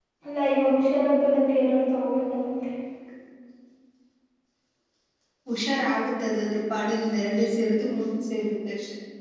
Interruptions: none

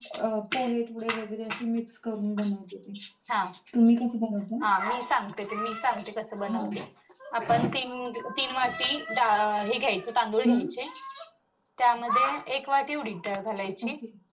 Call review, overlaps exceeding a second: none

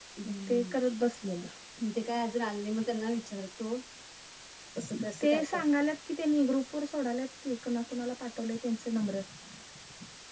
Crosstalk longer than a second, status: none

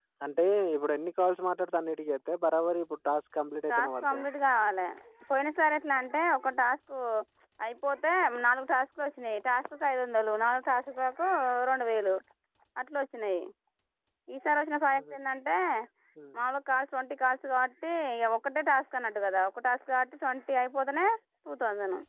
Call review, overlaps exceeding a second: none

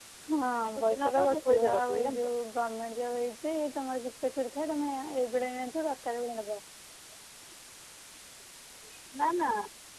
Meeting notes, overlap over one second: present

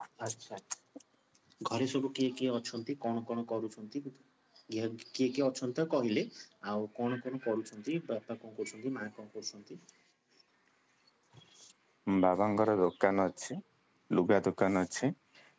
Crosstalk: none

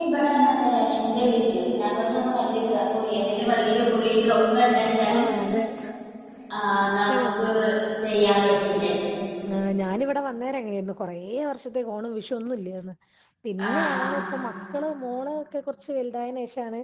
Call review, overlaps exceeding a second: none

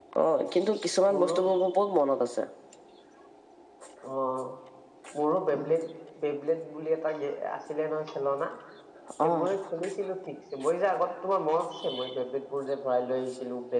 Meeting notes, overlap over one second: none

